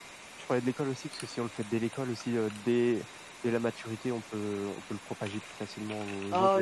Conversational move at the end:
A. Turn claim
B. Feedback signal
A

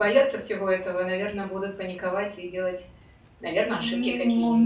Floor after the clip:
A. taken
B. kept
A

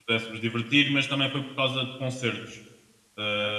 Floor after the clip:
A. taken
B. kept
B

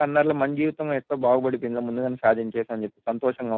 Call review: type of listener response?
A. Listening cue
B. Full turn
B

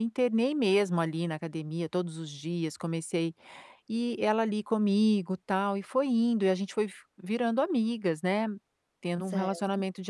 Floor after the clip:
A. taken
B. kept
B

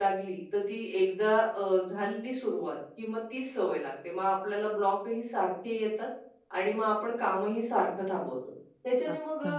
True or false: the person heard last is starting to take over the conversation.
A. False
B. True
A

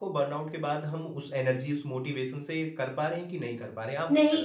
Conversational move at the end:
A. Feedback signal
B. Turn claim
B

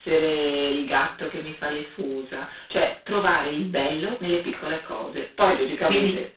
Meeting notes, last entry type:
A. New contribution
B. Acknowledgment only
A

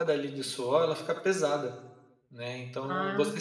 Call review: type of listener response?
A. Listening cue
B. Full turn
A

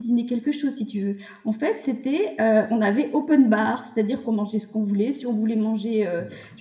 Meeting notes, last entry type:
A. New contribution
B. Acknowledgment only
B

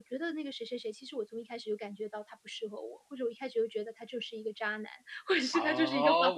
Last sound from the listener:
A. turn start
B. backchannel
A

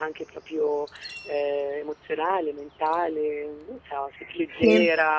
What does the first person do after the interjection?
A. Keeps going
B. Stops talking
A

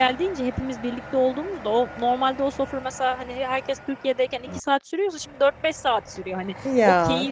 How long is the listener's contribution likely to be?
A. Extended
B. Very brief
B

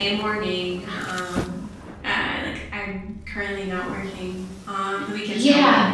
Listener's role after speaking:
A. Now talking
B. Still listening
A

